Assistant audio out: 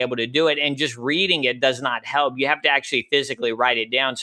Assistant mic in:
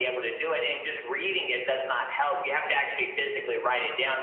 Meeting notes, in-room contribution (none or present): none